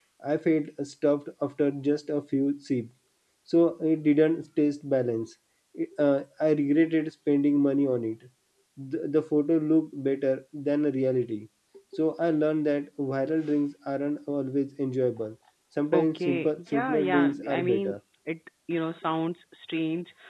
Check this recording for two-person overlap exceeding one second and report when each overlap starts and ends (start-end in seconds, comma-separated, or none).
15.9-18.0